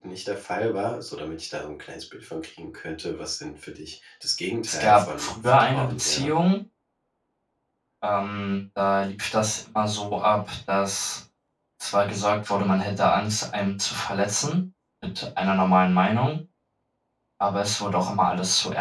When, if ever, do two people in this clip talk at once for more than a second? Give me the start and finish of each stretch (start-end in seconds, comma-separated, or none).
4.7-6.3